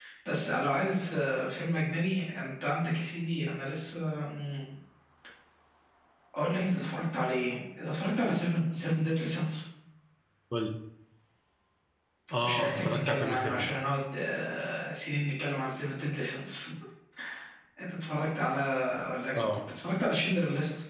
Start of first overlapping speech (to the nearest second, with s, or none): 12 s